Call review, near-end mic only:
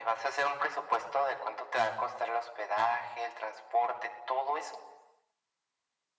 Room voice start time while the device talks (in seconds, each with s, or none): none